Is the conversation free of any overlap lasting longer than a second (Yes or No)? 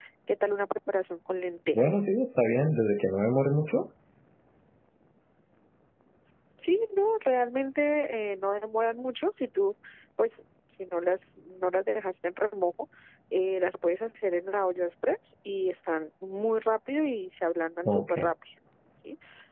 Yes